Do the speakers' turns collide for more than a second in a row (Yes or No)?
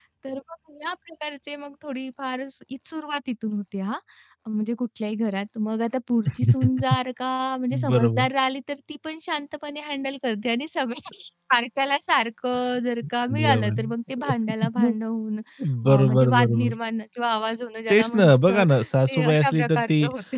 Yes